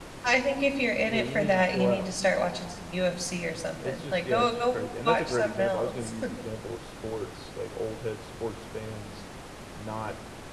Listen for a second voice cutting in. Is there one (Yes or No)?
Yes